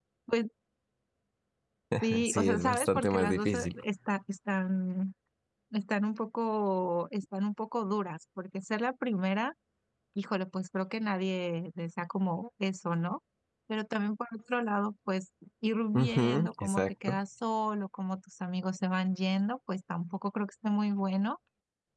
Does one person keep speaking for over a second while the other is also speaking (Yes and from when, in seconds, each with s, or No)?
Yes, from 2.2 s